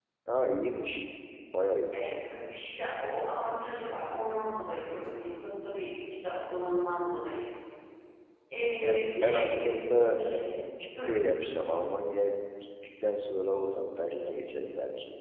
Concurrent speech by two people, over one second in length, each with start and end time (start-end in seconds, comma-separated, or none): 8.8-10.2